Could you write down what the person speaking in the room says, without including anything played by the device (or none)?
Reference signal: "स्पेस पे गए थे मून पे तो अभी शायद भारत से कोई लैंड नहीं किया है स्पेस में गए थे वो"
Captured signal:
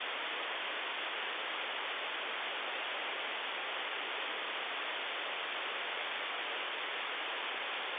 none